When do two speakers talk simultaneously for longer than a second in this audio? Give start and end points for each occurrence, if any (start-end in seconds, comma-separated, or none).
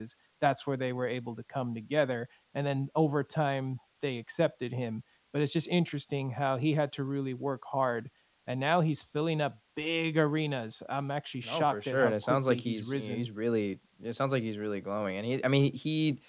11.4-13.3